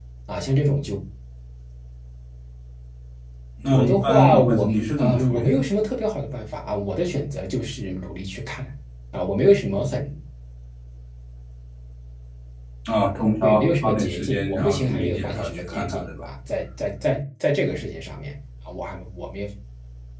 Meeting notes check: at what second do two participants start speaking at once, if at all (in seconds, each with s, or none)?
3.7 s